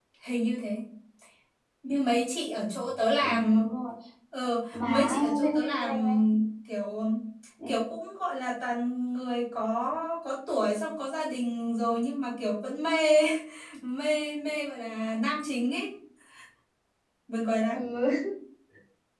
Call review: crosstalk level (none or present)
present